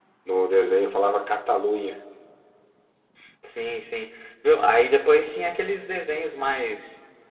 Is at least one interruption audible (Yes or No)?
No